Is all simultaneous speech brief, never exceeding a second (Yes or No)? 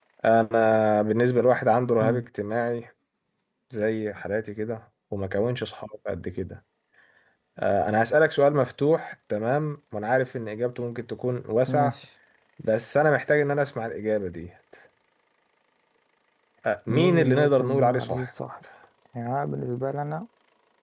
No